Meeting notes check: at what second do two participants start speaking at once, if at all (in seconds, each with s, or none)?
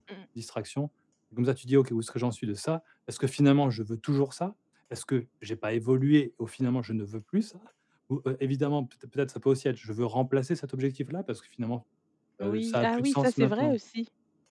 12.4 s